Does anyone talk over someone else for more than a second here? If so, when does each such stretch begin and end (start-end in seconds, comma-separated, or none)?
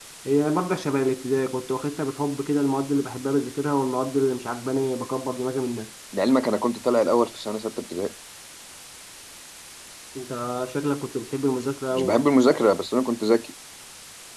none